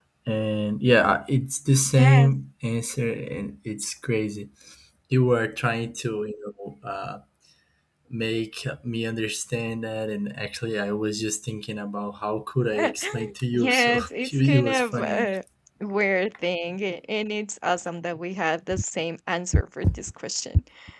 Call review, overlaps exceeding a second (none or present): present